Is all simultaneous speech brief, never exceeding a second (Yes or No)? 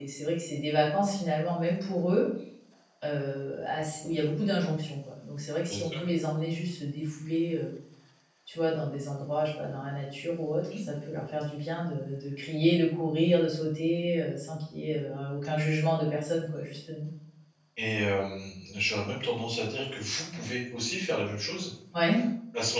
Yes